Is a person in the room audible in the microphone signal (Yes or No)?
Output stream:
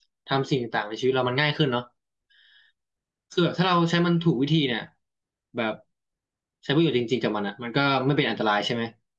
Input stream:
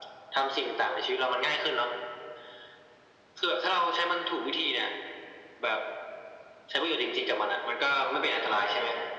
No